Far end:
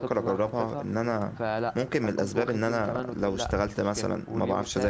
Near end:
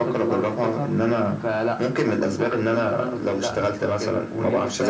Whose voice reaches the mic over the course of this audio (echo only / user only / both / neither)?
echo only